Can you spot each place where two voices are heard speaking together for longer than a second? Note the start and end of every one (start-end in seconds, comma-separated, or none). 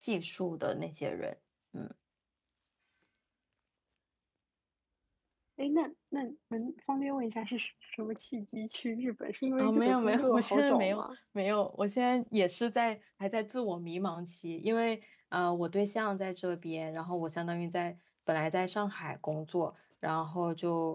9.6-11.0